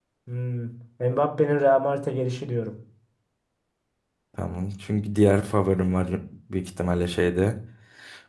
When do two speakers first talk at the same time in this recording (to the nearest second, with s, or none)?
none